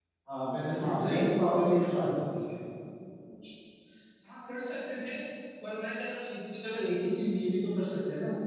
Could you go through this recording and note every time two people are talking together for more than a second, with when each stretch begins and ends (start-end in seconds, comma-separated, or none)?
0.8-2.4